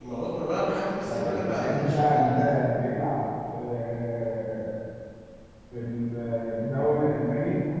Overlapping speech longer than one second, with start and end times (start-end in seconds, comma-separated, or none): 1.0-2.5